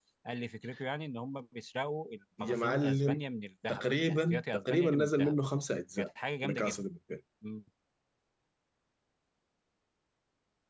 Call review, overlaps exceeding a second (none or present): present